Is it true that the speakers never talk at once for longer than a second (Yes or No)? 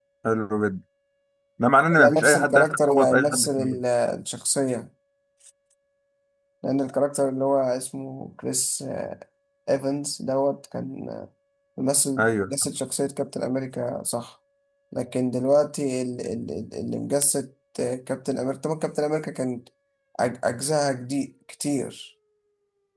No